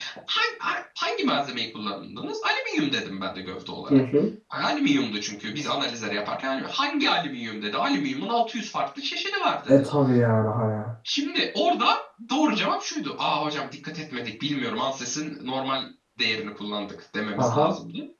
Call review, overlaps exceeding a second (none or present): none